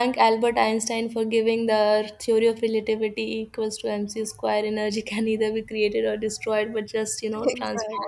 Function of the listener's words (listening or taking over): listening